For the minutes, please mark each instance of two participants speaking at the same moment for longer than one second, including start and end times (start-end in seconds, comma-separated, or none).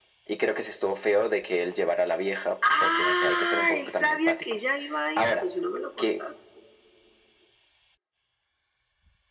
2.8-4.4